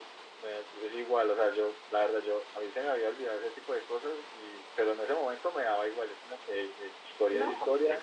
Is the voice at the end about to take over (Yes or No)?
Yes